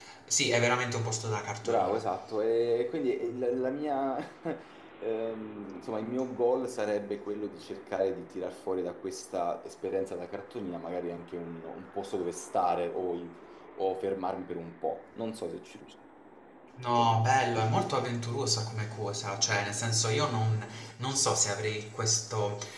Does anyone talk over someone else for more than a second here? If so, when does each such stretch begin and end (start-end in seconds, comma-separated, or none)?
none